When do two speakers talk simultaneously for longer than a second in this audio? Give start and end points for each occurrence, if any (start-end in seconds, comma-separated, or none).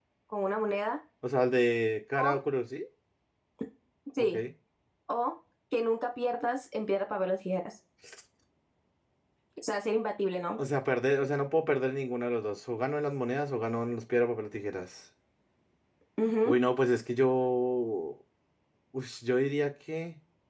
none